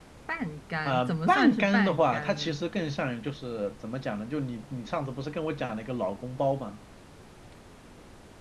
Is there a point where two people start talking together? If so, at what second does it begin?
0.8 s

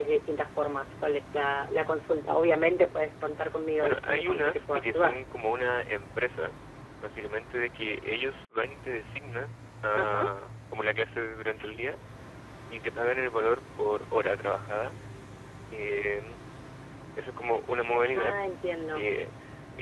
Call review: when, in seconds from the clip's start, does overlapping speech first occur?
3.8 s

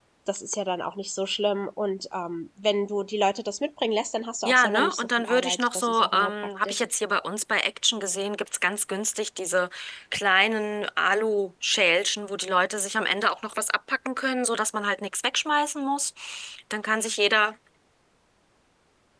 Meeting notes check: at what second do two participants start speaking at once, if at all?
4.4 s

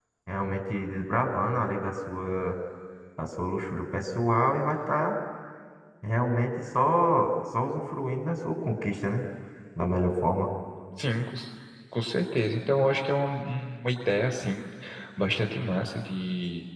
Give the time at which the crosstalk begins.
none

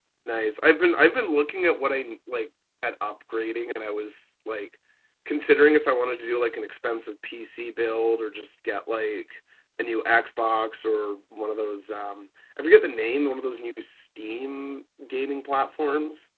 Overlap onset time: none

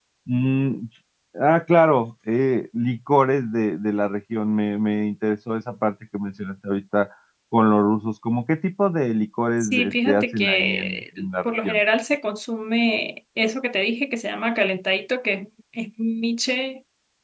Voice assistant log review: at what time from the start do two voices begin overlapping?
9.6 s

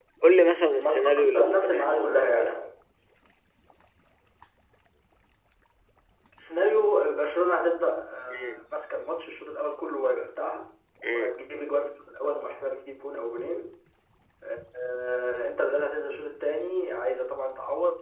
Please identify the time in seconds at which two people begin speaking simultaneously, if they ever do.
0.8 s

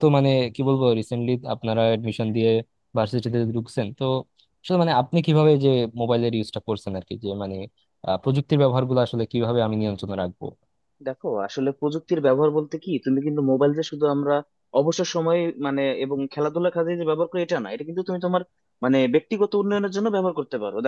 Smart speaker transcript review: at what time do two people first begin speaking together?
none

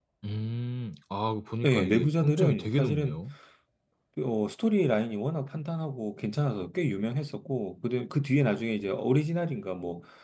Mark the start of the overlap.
1.6 s

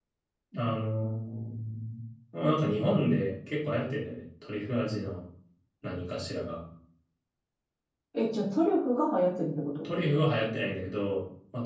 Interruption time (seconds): none

